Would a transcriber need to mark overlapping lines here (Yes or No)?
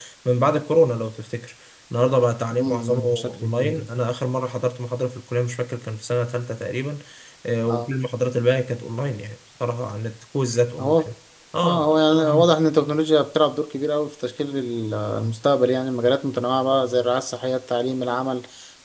Yes